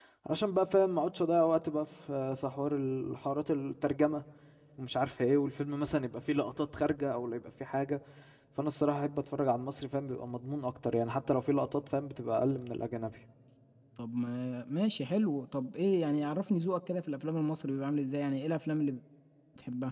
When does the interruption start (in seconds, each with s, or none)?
none